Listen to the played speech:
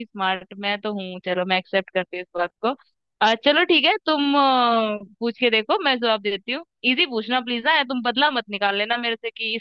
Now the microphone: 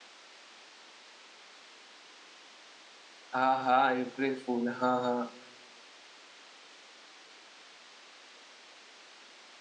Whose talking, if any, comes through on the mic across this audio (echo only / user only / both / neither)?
user only